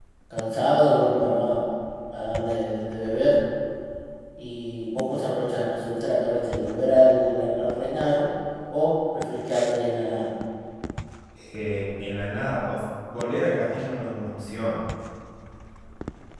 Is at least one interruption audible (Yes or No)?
No